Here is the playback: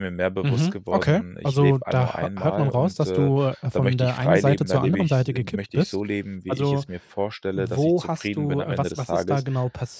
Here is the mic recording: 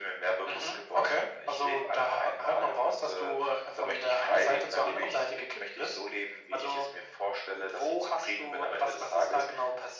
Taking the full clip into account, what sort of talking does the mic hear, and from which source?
echo only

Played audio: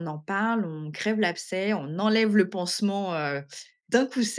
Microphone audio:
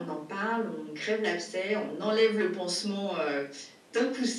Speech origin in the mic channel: echo only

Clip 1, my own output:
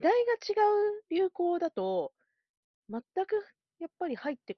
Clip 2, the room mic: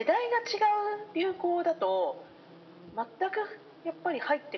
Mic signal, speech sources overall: echo only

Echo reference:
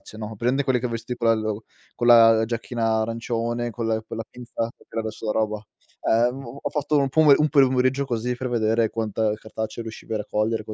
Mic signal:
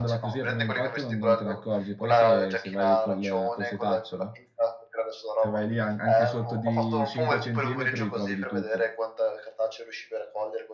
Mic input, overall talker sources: both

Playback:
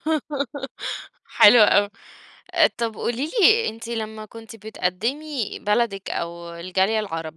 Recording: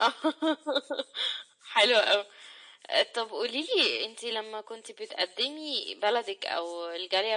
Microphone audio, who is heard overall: echo only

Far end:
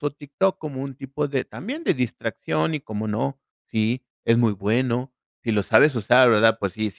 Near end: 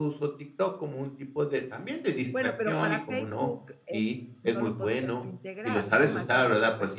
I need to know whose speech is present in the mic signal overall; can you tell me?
both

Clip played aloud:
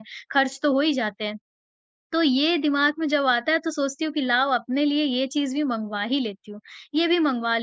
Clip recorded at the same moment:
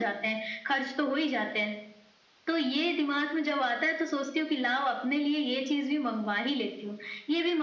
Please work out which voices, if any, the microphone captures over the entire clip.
echo only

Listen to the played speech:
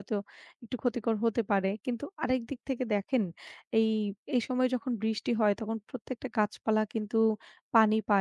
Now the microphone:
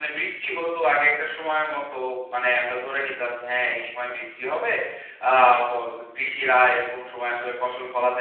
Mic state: user only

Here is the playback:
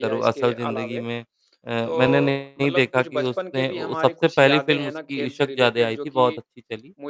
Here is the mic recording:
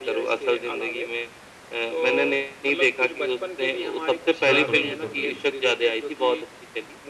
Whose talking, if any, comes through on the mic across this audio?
both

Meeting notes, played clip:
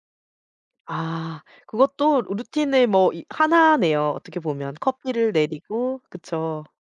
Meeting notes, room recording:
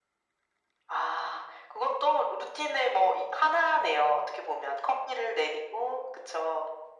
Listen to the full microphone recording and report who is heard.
echo only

